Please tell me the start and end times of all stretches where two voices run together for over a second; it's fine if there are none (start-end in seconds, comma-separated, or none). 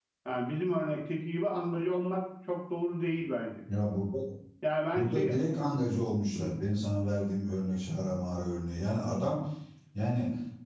none